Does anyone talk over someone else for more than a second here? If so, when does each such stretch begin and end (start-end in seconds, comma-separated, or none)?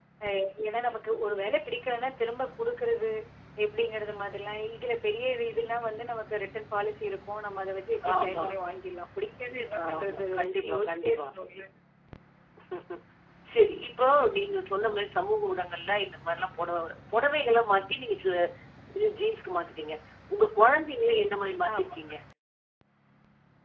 9.8-11.2